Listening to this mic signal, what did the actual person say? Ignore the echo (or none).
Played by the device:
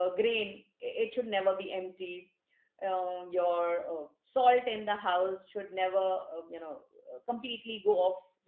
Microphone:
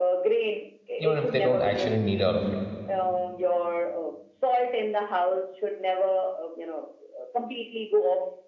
even if they don't actually need all of it